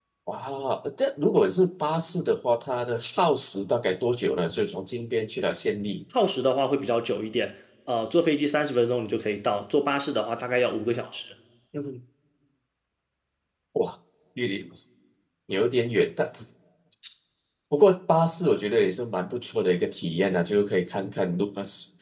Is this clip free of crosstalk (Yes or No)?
Yes